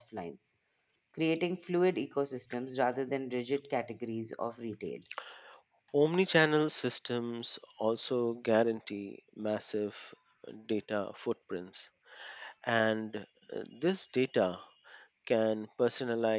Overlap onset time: none

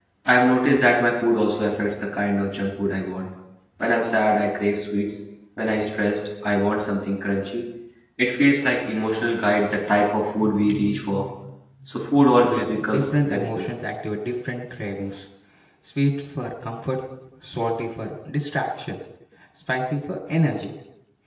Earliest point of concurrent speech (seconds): 12.4 s

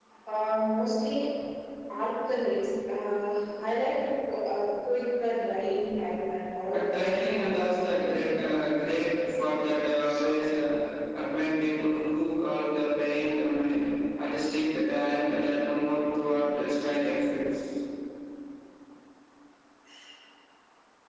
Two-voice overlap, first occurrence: 6.7 s

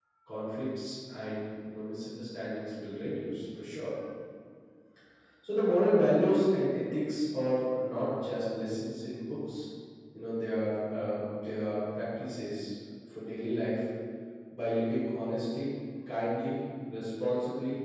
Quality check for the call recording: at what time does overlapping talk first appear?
none

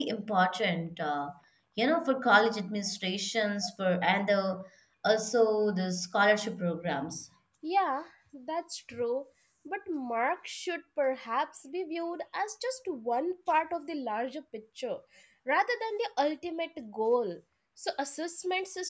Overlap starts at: none

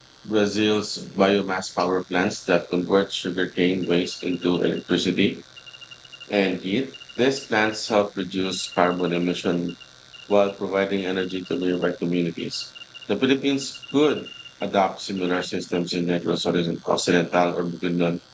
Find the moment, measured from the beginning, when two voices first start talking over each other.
none

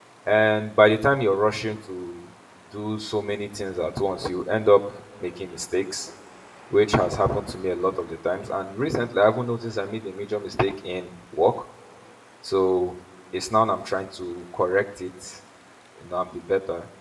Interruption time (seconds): none

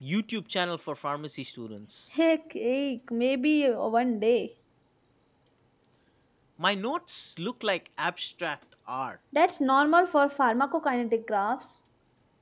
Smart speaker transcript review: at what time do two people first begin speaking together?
none

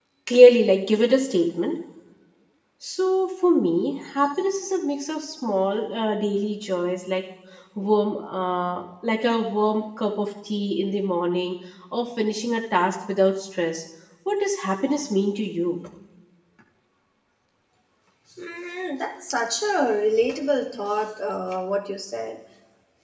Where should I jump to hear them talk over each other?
none

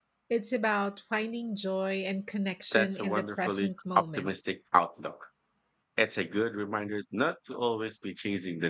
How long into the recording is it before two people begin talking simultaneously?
2.7 s

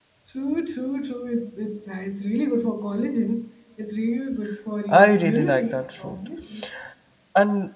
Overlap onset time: 4.9 s

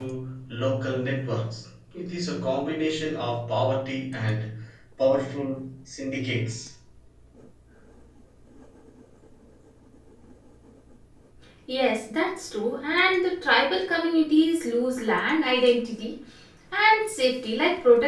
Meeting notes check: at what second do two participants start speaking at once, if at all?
none

